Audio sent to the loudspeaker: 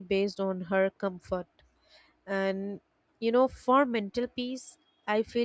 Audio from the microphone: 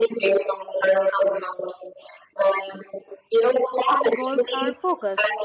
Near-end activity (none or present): present